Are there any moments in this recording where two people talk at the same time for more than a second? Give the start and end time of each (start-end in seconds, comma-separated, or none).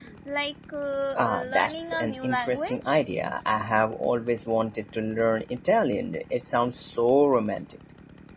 1.2-3.0